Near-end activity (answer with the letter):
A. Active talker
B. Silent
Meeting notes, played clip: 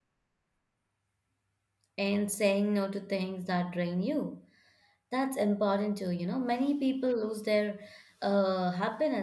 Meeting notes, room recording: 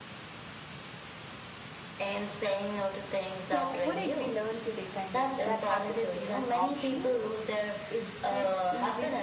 A